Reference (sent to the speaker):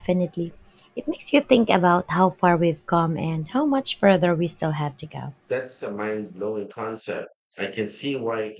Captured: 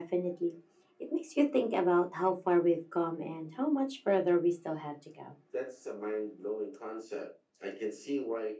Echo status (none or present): present